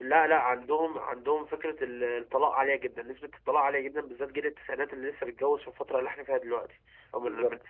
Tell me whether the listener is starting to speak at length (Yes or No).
No